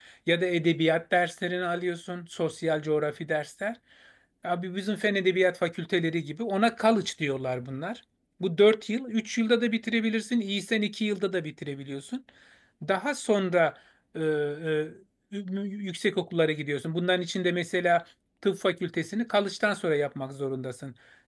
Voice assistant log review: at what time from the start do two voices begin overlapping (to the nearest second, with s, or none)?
none